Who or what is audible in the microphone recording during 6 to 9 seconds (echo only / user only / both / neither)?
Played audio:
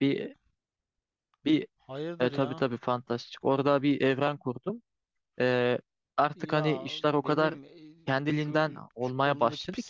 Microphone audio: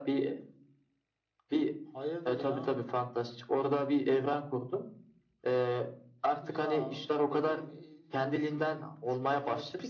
echo only